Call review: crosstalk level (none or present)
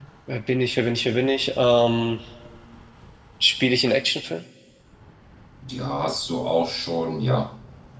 none